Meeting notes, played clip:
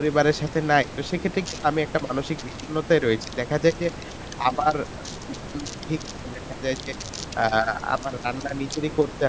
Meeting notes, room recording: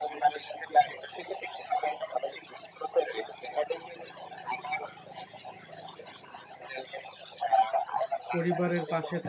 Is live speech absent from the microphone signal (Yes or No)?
No